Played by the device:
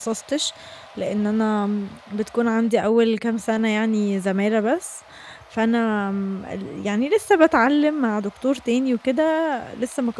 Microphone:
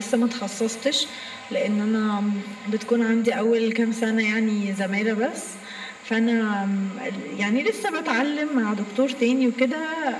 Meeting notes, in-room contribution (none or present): none